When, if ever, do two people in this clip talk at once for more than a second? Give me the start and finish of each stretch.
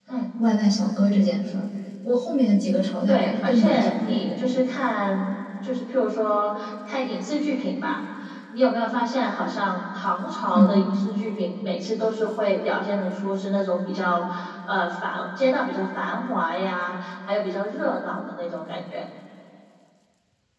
3.1-4.4

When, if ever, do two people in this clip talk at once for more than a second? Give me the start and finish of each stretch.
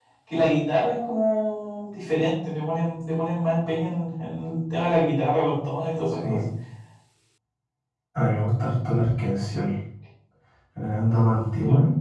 none

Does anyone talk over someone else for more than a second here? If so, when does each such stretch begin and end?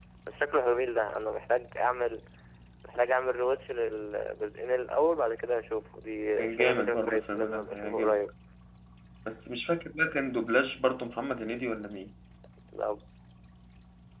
6.4-8.2

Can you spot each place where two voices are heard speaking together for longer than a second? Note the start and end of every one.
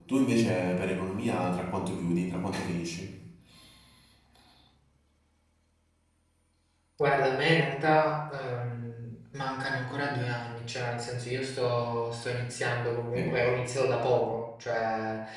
none

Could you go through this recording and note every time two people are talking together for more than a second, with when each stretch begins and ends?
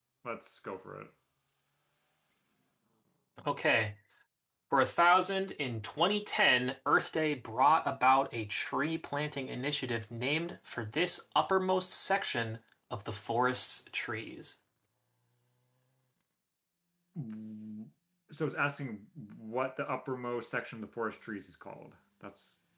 none

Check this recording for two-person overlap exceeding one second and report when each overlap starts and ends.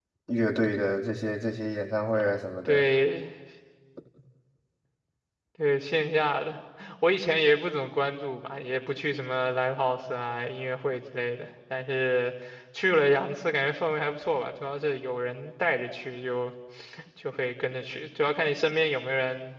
none

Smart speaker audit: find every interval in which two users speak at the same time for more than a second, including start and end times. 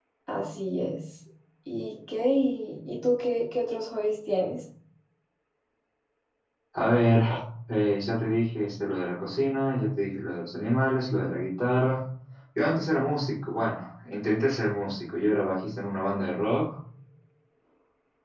none

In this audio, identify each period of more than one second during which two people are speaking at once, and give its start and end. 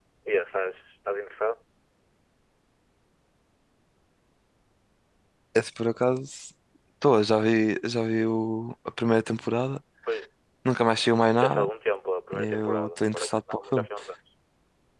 12.3-13.9

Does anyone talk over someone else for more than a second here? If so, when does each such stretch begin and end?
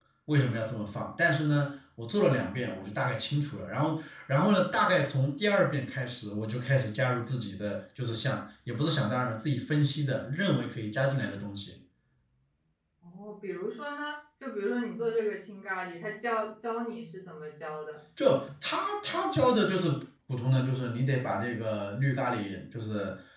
none

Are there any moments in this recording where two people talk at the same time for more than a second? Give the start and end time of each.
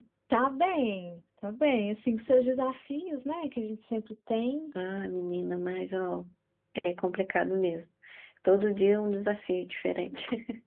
none

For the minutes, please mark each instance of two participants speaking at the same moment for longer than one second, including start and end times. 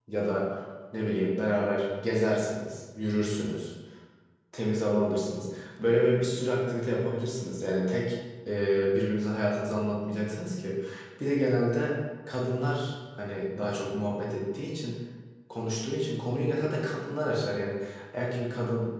none

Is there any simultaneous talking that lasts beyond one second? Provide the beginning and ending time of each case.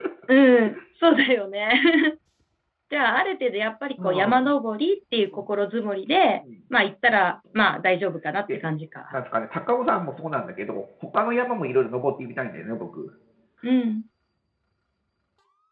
none

